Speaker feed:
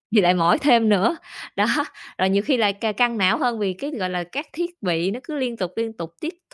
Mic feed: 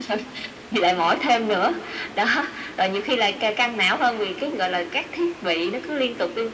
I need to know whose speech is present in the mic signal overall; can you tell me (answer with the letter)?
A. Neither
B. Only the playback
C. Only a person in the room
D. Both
B